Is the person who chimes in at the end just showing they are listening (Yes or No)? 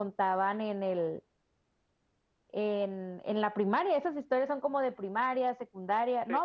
Yes